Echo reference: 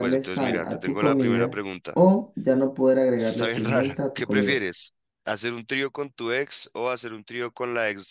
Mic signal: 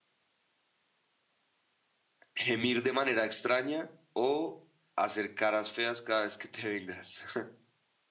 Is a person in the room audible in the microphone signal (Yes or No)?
Yes